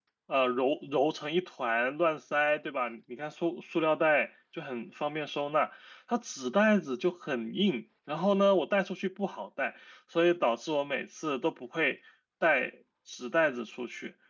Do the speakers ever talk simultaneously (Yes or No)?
No